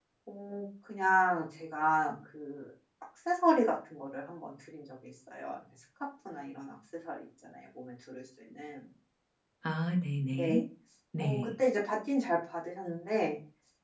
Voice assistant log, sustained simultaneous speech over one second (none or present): none